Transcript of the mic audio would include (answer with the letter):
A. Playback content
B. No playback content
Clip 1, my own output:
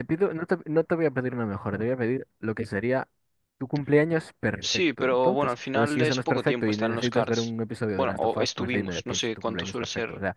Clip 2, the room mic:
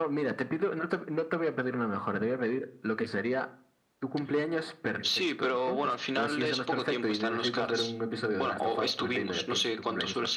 A